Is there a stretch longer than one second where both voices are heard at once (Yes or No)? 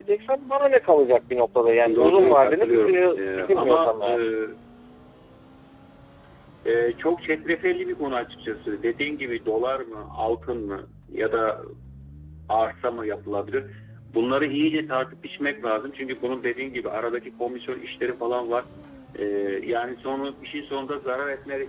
Yes